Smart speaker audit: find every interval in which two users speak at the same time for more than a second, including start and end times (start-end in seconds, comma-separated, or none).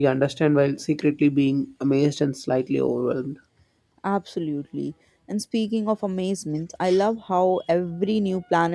none